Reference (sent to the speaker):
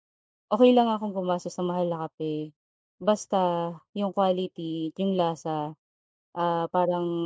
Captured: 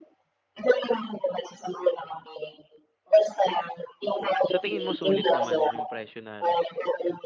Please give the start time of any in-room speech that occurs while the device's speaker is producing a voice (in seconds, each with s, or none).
4.5 s